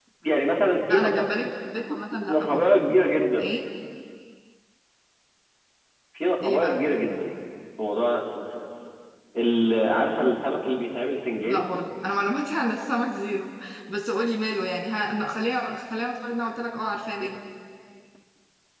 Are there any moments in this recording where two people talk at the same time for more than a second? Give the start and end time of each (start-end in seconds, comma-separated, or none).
none